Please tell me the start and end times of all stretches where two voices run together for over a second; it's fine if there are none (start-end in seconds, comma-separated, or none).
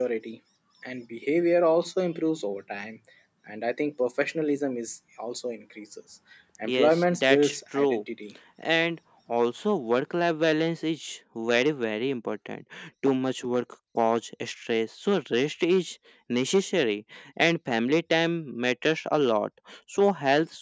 6.6-8.0